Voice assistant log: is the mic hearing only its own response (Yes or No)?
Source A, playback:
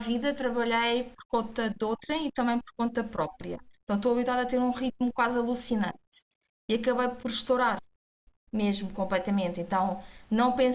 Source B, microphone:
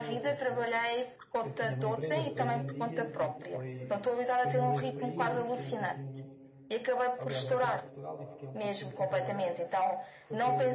No